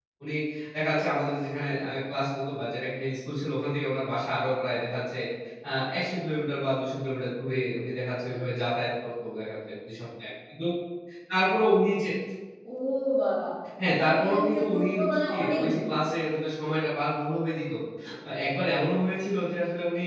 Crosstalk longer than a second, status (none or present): present